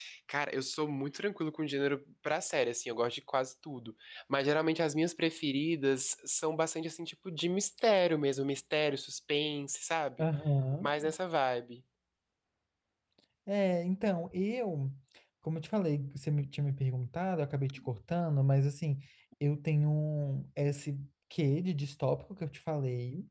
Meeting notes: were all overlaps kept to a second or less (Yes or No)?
Yes